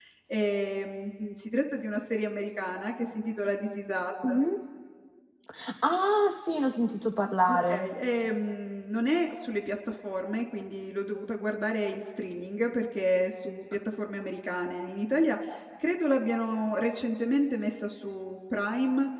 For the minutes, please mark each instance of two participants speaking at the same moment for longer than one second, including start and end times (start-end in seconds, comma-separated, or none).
none